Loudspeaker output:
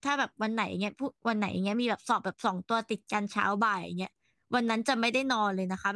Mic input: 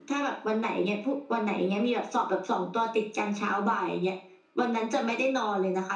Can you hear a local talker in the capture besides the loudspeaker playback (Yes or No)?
No